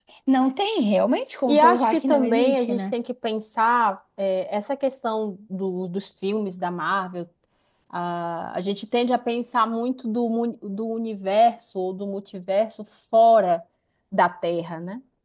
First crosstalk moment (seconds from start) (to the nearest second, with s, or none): 1 s